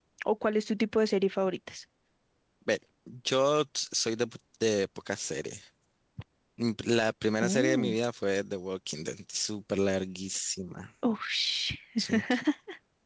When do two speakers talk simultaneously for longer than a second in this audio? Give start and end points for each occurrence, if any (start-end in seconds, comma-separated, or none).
none